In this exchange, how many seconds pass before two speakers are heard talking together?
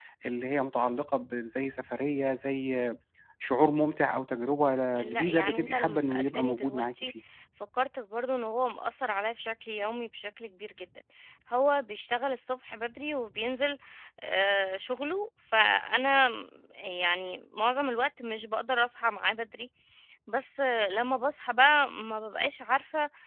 5.0 s

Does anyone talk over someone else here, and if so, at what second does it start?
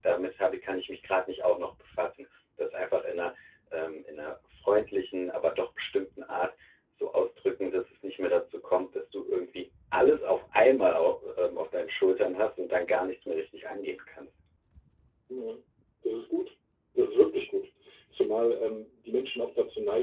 none

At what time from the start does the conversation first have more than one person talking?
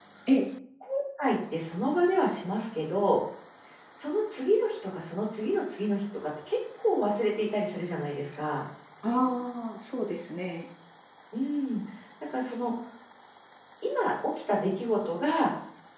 none

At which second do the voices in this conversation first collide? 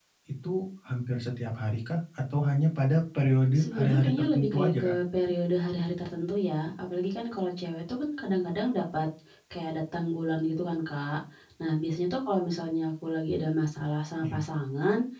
3.5 s

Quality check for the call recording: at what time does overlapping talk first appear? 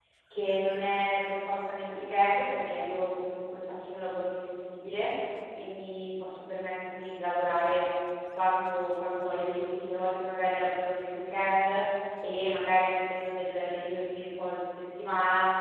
none

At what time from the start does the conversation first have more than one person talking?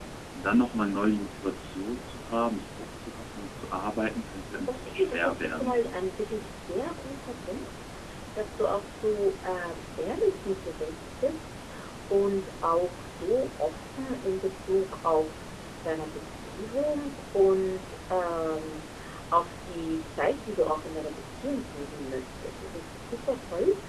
4.7 s

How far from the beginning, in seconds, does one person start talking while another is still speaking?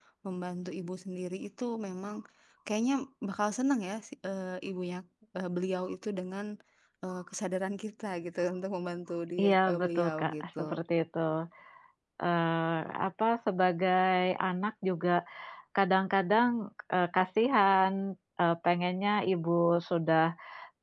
9.4 s

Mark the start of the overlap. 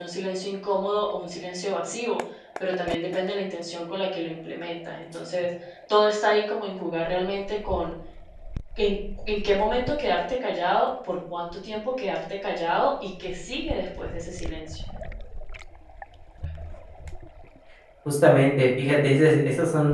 none

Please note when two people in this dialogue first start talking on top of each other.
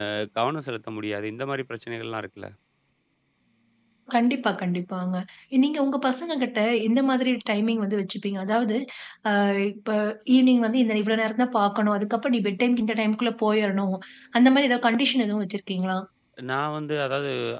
none

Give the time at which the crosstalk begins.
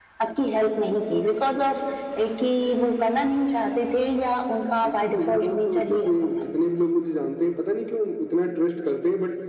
4.8 s

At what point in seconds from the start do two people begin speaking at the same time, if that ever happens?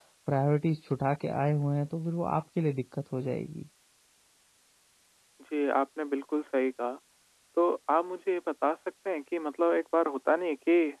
none

